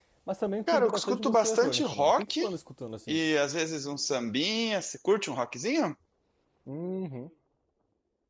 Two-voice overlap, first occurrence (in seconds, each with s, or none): 0.7 s